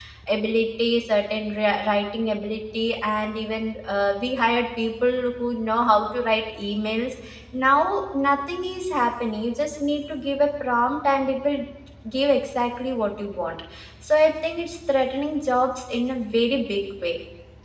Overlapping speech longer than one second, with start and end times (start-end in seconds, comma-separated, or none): none